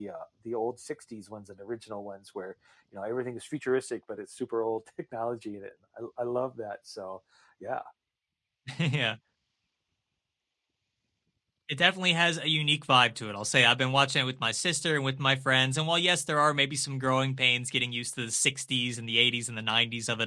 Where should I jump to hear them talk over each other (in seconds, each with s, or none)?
none